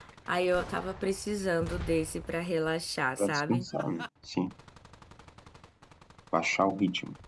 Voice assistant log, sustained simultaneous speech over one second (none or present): none